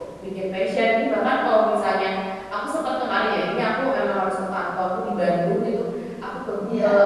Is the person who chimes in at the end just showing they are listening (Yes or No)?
Yes